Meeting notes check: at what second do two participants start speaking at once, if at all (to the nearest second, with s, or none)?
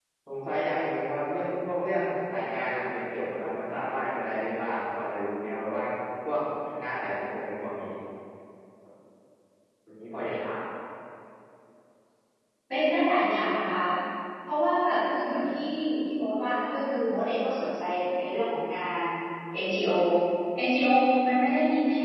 none